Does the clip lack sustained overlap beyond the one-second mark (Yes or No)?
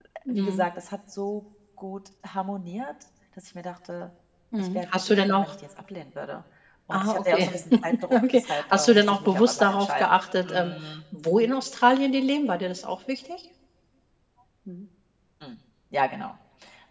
No